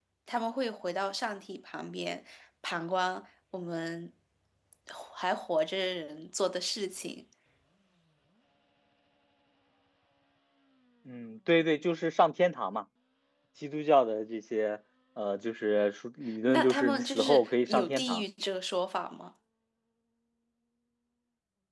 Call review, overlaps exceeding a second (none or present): present